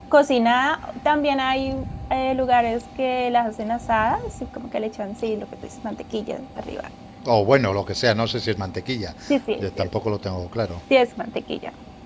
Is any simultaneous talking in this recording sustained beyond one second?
No

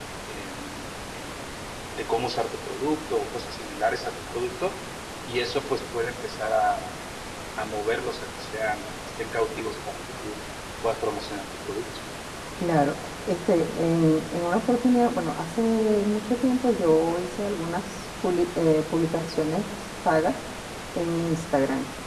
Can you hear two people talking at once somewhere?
No

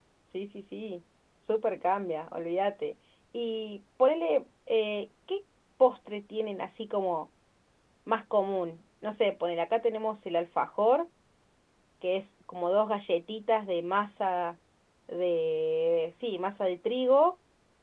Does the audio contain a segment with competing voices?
No

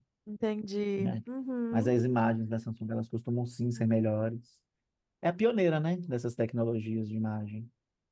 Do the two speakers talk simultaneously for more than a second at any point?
No

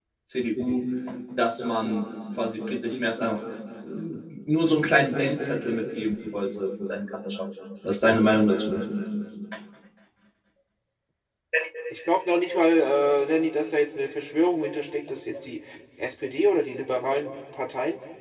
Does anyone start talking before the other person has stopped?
No

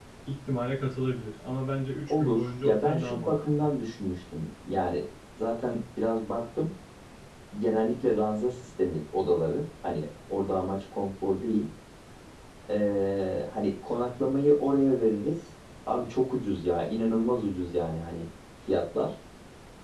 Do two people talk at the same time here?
Yes, from 2.1 s

